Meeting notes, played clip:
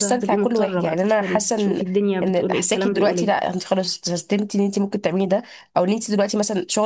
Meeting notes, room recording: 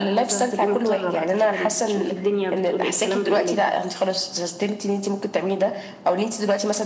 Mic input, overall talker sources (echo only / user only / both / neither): echo only